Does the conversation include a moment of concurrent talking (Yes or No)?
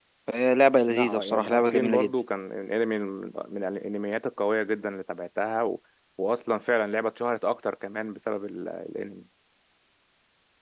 Yes